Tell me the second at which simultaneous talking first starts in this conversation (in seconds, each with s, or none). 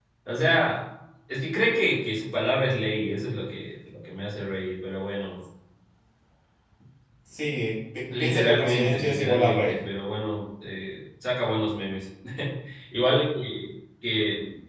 8.1 s